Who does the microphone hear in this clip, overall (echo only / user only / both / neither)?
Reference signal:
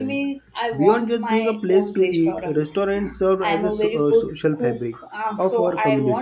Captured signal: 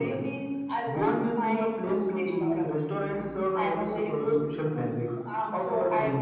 echo only